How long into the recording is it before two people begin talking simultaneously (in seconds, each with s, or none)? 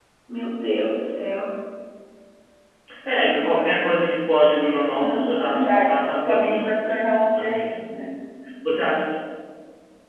5.0 s